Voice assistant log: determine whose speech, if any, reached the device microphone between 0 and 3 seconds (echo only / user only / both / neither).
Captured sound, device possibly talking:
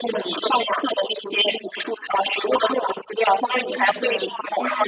echo only